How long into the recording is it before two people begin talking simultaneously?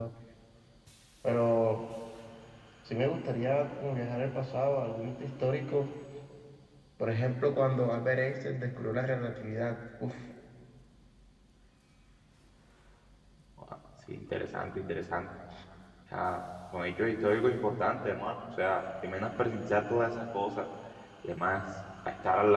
none

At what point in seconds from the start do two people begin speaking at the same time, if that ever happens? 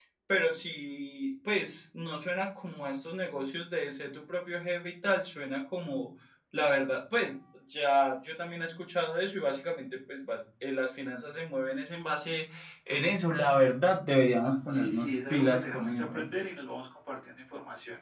14.7 s

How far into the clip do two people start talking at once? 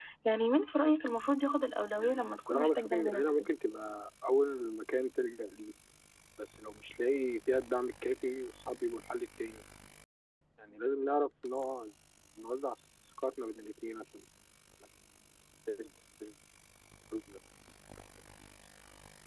2.0 s

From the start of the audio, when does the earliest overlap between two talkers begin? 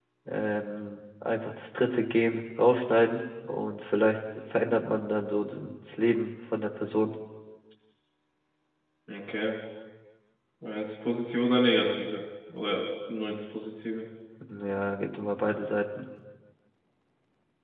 none

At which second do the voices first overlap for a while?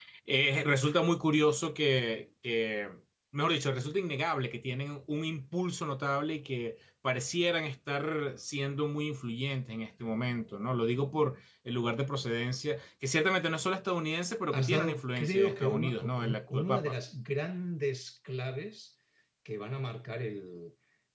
14.5 s

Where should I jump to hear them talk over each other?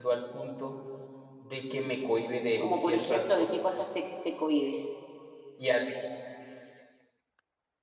2.6 s

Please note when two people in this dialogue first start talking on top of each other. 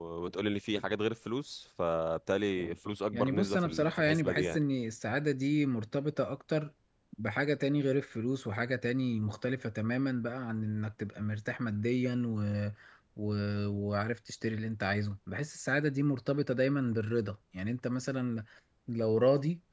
3.1 s

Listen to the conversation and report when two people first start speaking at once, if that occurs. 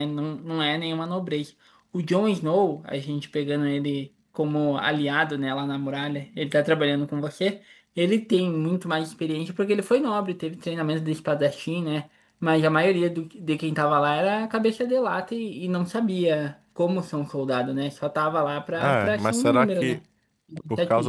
18.7 s

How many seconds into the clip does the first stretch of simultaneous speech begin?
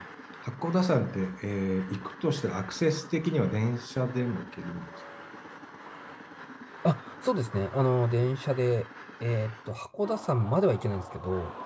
none

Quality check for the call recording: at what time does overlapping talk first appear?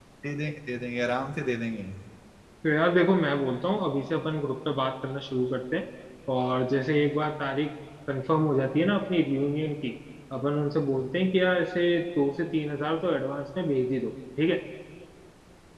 none

